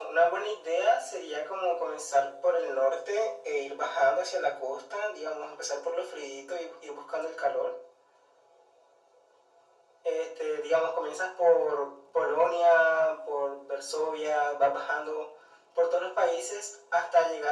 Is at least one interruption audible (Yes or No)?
No